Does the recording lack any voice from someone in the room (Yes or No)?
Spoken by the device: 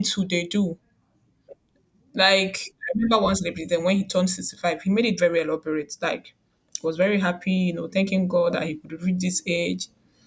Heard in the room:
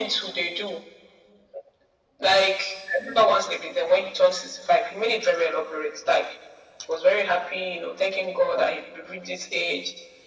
Yes